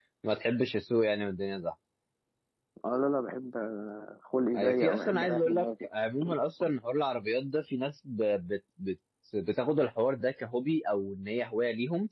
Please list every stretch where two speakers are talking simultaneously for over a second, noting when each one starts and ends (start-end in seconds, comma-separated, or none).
4.6-5.9